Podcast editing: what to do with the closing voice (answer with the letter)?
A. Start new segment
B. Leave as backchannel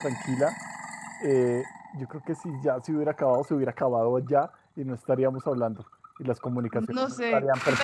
A